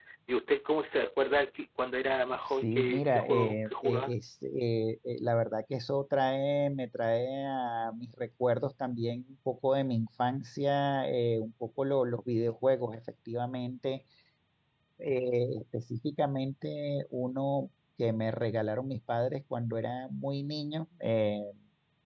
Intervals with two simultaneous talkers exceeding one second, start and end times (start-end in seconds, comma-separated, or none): 2.6-4.1